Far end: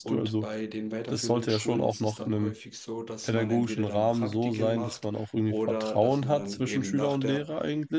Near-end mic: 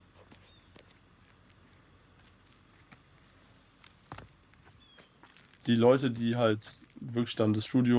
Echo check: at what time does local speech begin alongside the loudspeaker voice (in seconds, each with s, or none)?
5.7 s